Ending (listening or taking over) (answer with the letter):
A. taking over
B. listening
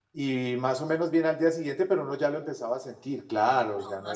A